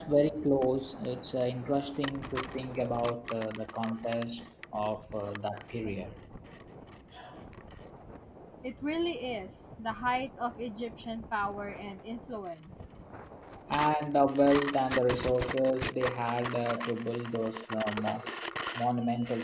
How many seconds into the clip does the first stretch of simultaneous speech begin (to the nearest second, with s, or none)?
none